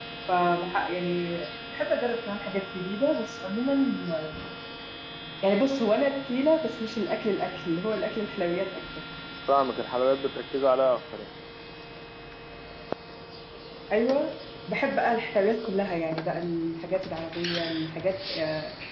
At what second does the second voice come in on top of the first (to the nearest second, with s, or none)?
none